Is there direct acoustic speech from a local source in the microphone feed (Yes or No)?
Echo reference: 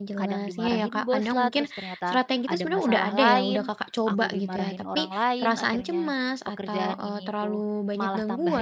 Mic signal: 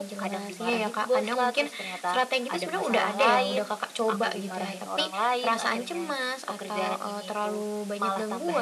No